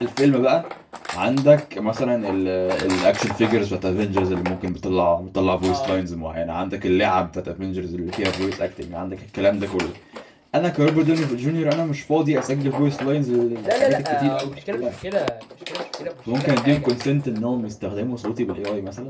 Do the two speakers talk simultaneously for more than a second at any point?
Yes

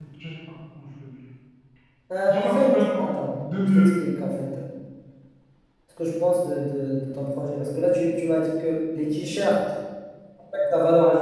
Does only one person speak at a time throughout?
No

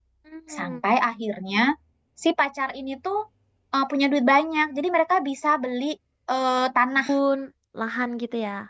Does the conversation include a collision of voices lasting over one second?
No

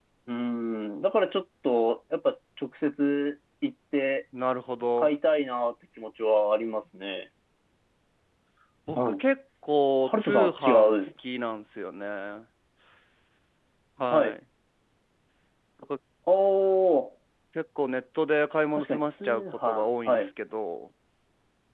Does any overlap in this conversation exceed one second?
Yes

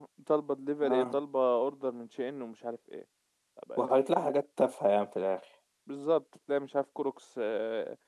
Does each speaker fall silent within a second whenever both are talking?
Yes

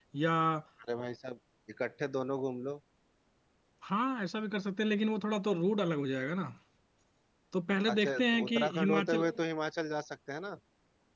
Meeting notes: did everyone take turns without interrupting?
No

